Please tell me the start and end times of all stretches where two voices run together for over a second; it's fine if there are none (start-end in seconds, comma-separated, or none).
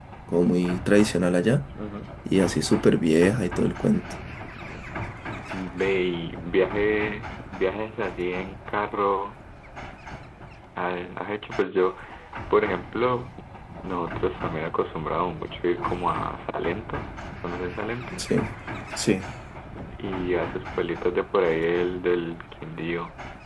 none